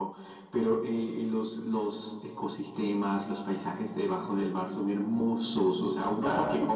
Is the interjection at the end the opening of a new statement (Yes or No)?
No